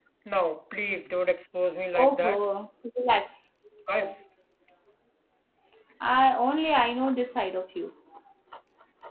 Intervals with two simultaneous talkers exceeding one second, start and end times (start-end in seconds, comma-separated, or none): none